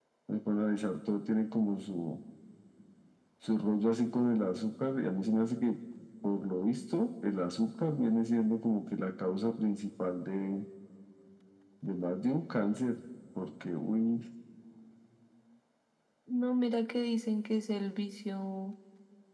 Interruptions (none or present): none